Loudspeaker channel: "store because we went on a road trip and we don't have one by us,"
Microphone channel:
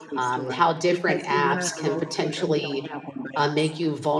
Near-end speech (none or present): present